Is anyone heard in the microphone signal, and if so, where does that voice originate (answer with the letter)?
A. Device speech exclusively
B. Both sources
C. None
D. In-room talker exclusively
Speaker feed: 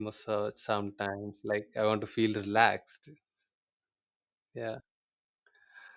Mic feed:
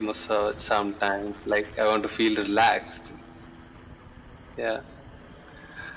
A